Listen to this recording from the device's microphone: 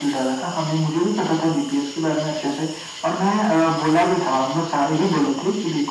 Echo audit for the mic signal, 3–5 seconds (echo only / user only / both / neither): echo only